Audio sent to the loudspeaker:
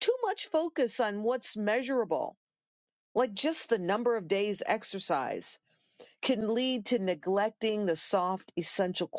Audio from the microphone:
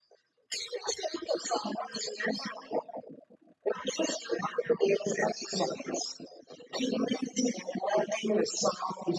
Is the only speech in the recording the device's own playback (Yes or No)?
Yes